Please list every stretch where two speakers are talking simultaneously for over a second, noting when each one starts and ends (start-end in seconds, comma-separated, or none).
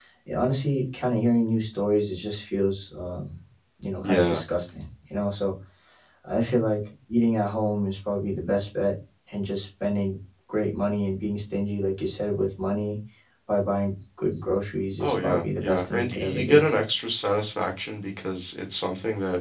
15.0-16.6